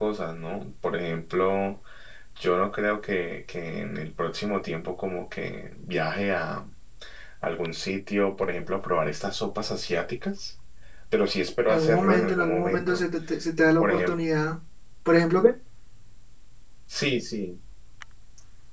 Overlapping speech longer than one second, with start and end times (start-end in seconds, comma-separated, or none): 11.7-13.0